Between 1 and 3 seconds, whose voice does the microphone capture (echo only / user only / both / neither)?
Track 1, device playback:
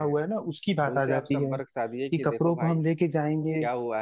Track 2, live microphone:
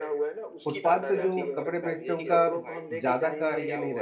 both